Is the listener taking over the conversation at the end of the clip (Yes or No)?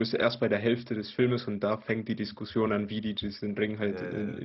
No